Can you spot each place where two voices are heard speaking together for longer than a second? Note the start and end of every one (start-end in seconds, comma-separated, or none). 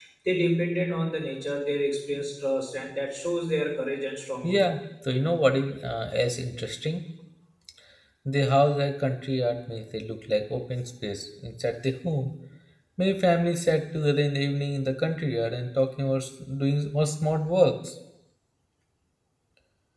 none